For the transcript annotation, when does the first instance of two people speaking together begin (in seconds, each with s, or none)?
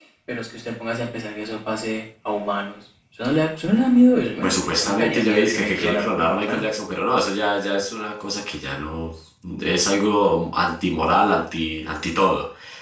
4.4 s